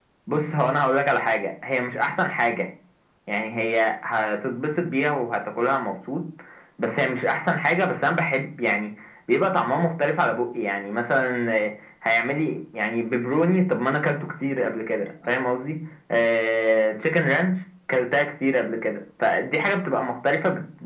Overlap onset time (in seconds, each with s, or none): none